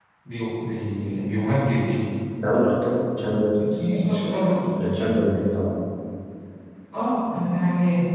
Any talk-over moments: No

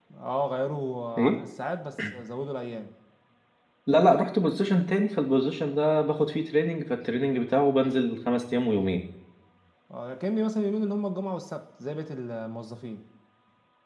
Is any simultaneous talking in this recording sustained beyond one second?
No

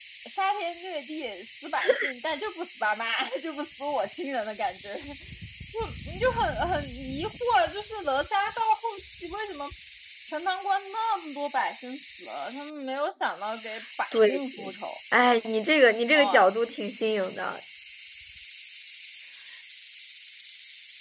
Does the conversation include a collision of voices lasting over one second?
No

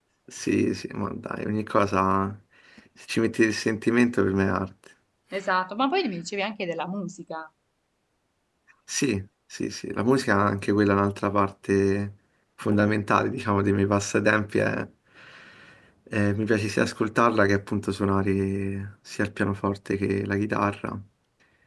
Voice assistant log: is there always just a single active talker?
Yes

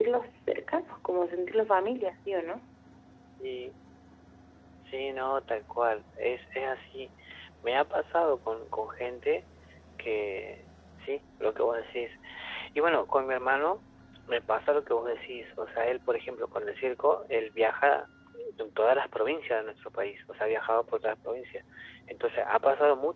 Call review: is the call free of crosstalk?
Yes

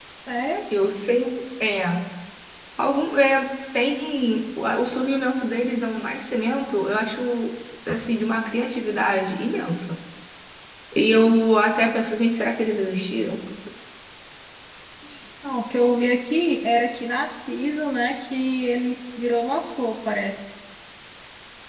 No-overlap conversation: Yes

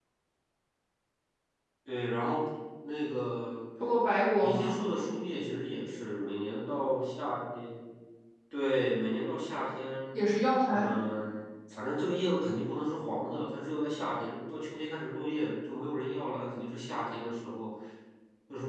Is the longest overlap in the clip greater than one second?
No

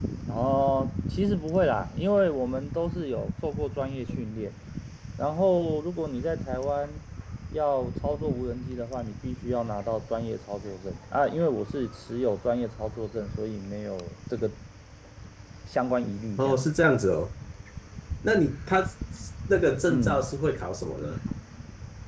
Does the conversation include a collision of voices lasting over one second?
No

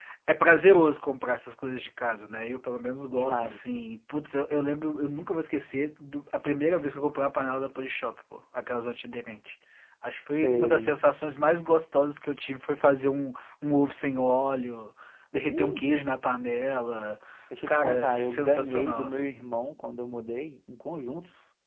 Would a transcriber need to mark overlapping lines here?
Yes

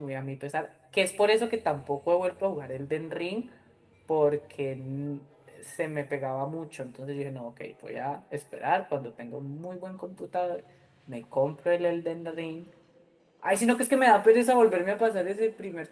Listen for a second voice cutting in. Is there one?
No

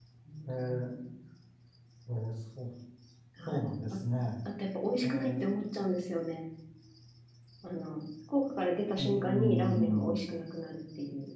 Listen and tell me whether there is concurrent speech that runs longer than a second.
Yes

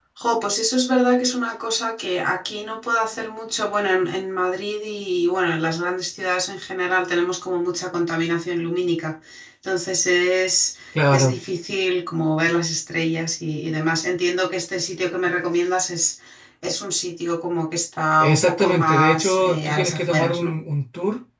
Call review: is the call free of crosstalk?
No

